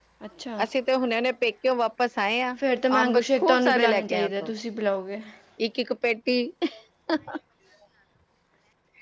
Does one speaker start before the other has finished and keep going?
Yes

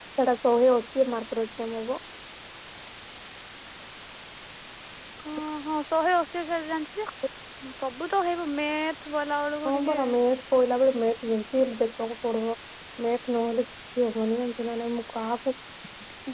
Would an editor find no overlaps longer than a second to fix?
Yes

